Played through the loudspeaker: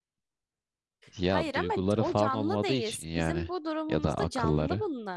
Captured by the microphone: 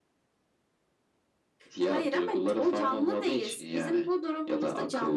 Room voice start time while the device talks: none

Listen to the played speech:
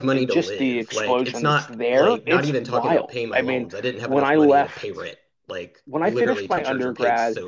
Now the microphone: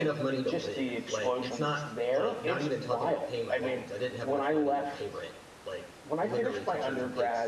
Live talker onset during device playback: none

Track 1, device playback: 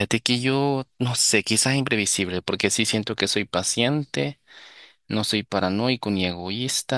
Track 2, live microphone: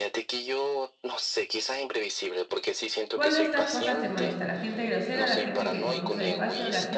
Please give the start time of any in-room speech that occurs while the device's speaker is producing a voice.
3.1 s

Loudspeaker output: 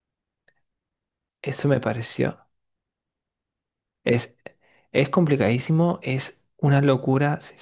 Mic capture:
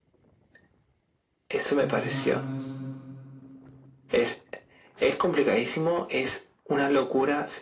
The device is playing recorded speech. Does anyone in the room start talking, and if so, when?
1.8 s

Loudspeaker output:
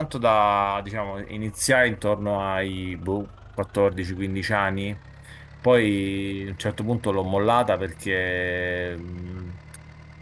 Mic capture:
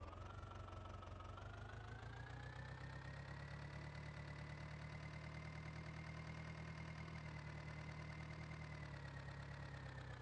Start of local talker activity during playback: none

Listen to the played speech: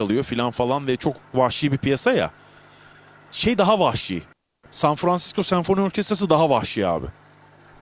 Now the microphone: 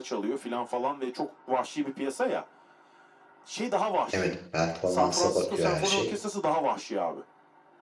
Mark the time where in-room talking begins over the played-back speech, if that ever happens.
4.1 s

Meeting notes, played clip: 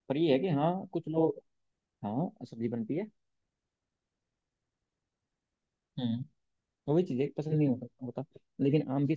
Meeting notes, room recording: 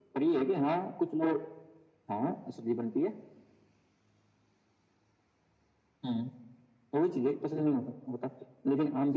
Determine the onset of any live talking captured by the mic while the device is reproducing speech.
none

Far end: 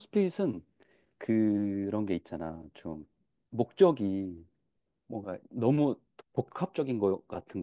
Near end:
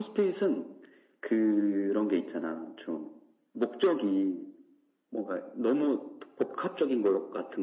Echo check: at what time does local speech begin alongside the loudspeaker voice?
none

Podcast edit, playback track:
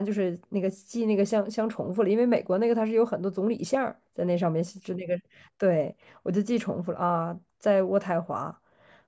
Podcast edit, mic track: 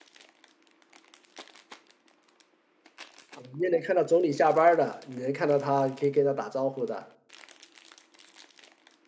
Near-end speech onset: 3.3 s

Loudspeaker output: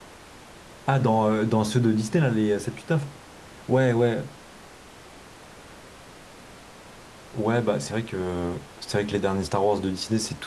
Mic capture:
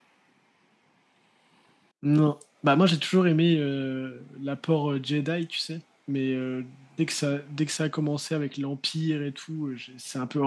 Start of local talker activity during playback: 2.0 s

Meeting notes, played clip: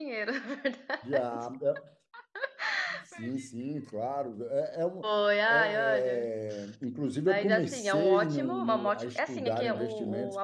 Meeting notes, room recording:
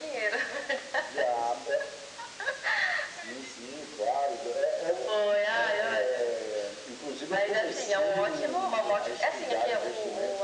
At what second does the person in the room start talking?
none

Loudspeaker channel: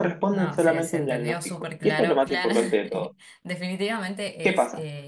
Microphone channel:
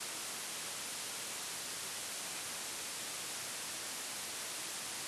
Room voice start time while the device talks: none

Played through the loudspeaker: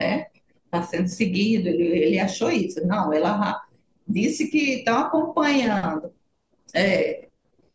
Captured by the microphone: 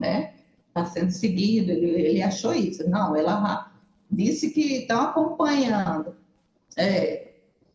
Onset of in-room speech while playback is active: none

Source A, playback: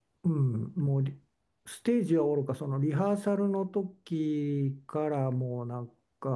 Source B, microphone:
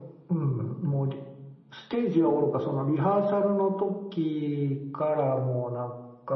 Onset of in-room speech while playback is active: none

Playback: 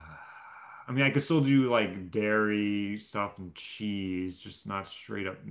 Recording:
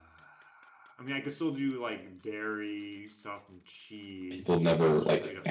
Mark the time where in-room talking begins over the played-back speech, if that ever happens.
4.3 s

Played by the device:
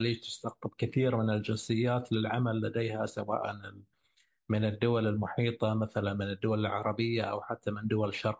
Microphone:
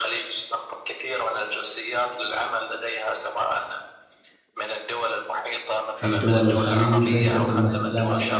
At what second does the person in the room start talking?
5.9 s

